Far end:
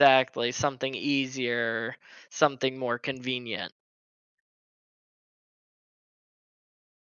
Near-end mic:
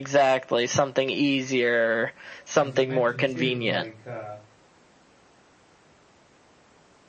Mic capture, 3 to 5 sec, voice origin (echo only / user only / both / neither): both